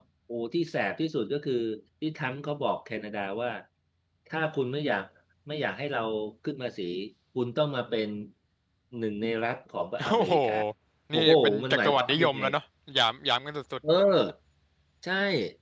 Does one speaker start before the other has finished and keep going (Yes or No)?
Yes